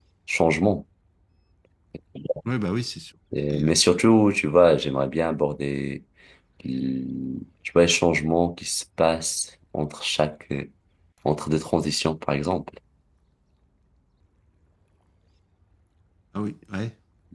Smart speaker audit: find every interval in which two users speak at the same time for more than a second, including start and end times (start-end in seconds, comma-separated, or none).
none